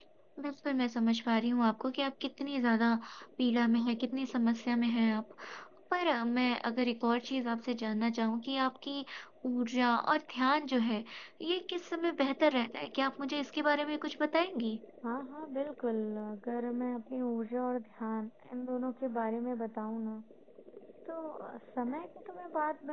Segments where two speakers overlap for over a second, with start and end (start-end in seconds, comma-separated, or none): none